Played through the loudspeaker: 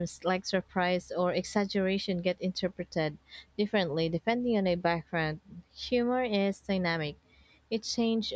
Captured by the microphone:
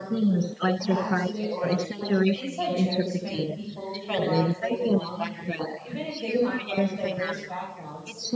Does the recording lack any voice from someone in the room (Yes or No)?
No